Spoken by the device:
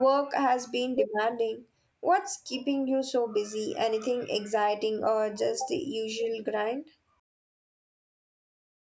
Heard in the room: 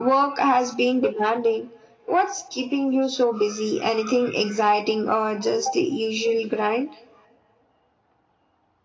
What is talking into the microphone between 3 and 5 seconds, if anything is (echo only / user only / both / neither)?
echo only